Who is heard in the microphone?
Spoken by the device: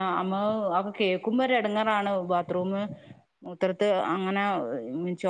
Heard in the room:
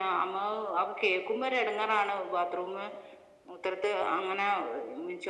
echo only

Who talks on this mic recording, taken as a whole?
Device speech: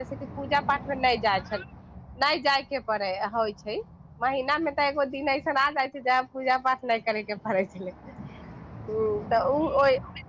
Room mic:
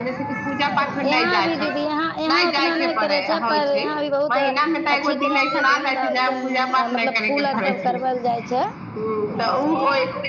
both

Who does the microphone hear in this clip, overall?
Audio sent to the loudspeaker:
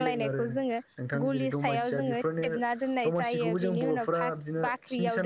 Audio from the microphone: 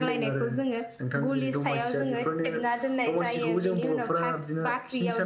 echo only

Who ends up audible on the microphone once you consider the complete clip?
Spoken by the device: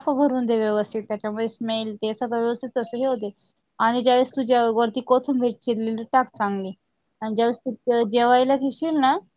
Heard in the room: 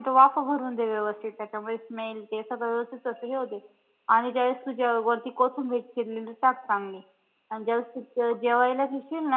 echo only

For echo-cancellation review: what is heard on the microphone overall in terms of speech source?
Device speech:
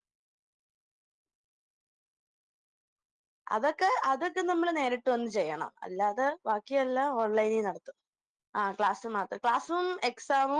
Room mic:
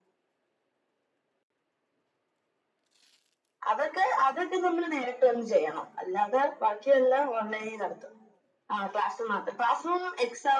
echo only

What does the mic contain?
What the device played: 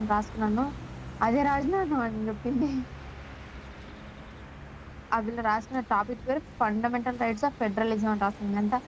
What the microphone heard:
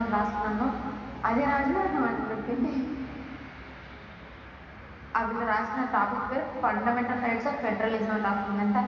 echo only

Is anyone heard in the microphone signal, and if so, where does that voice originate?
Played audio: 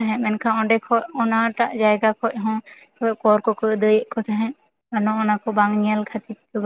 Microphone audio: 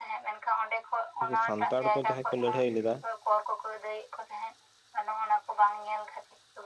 both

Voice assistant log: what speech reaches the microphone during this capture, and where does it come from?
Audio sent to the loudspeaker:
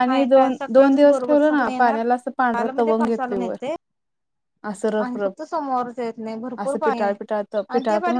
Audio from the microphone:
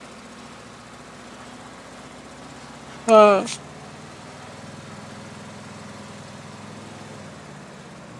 user only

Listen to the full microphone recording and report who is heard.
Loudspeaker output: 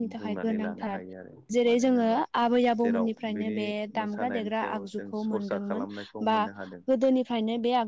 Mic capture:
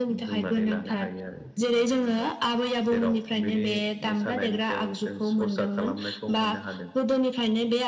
echo only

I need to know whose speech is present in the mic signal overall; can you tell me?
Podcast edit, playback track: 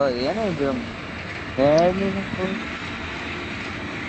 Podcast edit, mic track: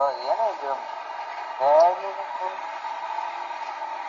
echo only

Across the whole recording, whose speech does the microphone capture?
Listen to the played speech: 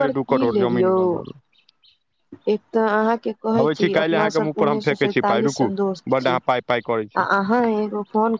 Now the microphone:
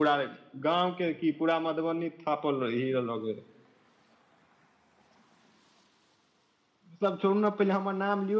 user only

